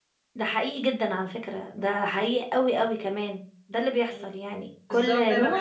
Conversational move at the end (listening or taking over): taking over